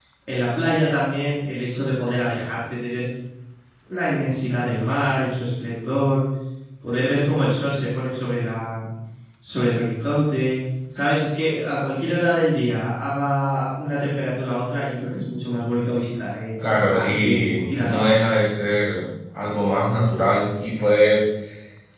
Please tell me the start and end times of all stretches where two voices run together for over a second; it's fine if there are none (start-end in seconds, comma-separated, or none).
16.6-18.4